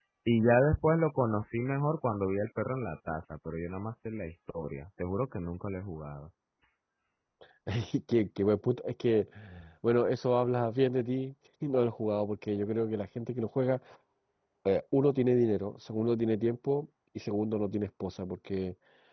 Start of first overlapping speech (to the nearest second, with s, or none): none